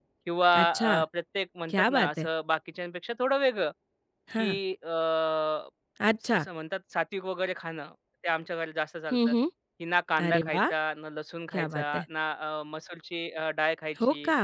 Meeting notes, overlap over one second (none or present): none